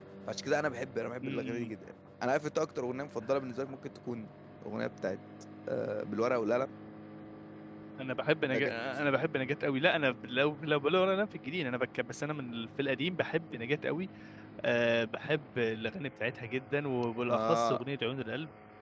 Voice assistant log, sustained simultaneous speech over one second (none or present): none